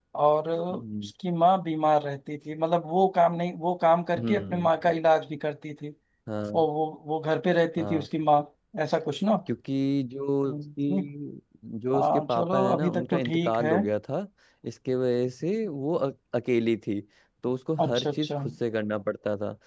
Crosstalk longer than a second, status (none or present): present